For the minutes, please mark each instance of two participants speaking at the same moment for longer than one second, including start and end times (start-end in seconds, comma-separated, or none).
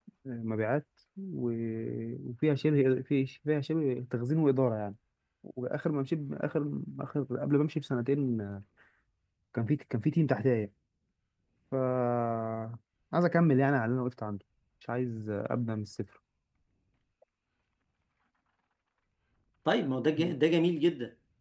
none